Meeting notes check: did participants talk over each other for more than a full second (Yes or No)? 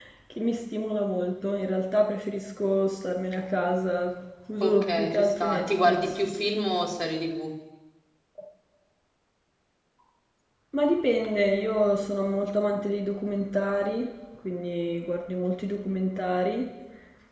Yes